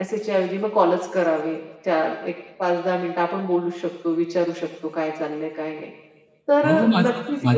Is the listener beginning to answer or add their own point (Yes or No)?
Yes